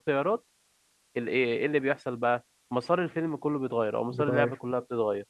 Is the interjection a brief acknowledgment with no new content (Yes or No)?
Yes